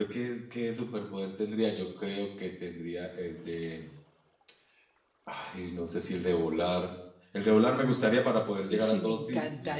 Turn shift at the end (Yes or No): Yes